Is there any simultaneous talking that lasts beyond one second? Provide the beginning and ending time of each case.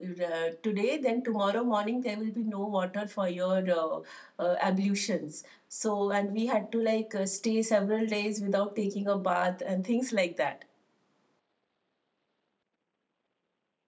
none

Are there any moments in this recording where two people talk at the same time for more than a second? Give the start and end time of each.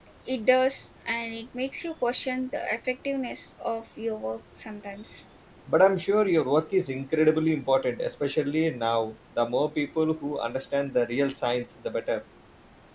none

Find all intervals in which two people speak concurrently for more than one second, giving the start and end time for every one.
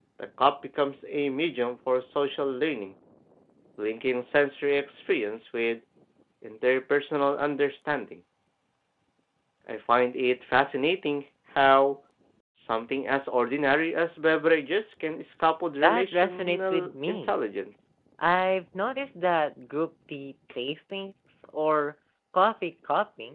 15.8-17.4

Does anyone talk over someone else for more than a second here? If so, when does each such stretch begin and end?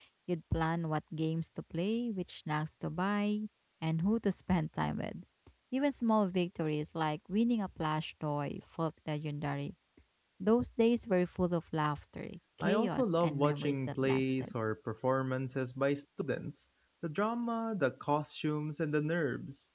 12.6-14.5

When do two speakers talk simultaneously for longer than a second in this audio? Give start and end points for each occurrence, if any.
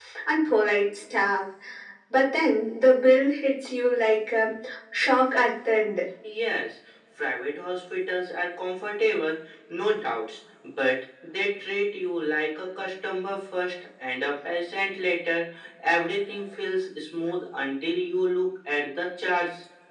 none

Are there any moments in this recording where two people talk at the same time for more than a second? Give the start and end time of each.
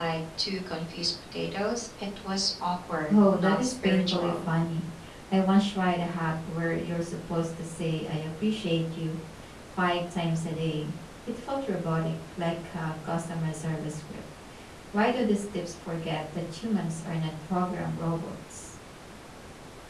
3.1-4.5

